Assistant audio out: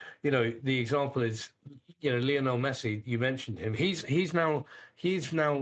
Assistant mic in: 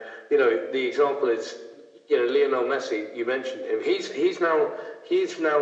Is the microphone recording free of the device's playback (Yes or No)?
No